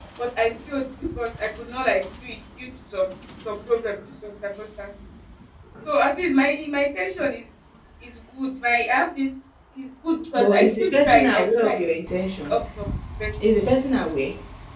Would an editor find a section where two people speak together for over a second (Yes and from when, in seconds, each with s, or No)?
Yes, from 10.4 s